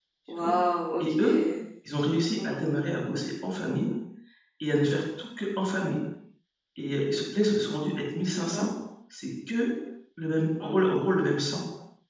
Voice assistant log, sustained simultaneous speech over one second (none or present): none